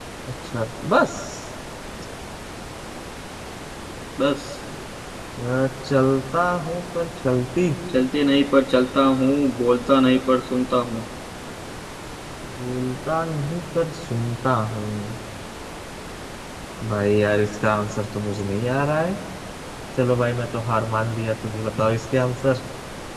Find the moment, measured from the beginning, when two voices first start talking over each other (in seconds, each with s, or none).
none